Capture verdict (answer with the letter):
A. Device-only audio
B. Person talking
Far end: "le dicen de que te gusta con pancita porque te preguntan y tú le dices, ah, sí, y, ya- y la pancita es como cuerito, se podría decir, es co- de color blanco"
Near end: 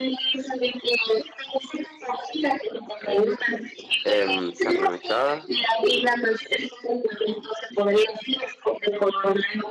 B